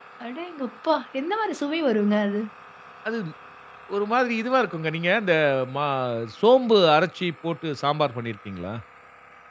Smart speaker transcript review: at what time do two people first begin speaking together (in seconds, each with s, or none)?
none